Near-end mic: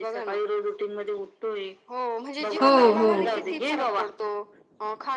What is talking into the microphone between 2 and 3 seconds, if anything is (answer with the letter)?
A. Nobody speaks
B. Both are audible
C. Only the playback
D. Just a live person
B